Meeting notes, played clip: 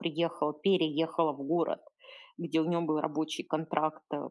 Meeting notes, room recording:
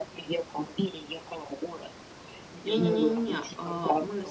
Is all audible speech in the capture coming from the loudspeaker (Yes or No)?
No